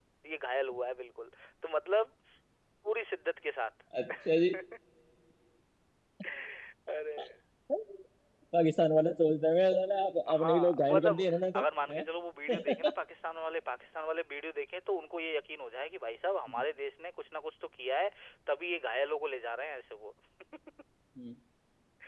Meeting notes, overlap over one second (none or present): present